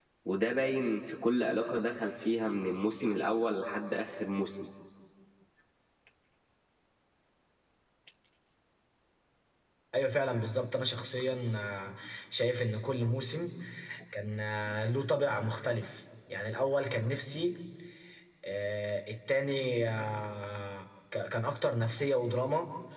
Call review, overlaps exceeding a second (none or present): none